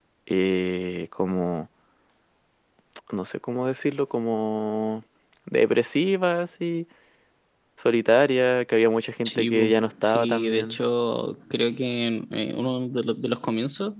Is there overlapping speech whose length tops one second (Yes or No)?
Yes